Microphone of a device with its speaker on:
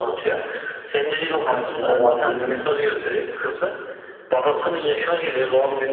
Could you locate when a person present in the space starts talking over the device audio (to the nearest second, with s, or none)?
1 s